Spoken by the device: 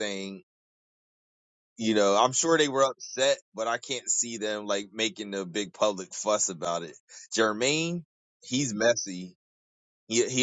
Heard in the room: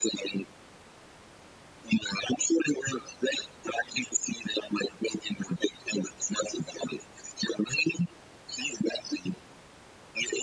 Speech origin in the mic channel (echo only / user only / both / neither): echo only